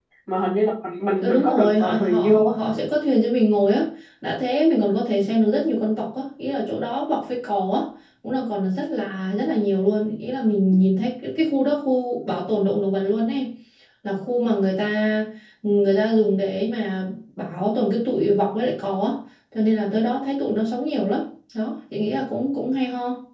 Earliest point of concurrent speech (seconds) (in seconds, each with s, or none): 1.2 s